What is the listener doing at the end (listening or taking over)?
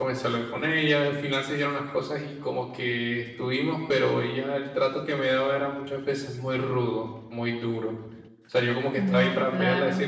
listening